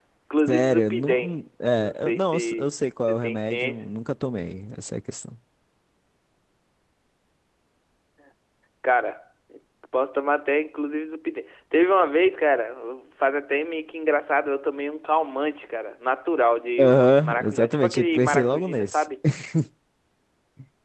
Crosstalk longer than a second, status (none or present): present